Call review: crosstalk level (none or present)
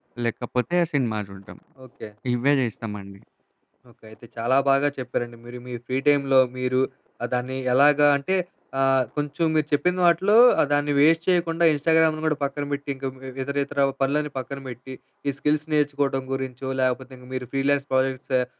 none